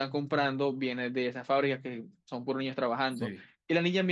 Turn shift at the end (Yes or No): No